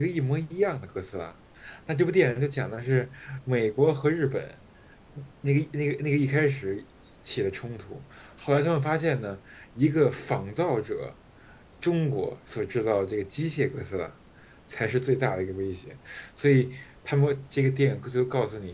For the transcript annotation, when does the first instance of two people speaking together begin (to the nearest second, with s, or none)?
none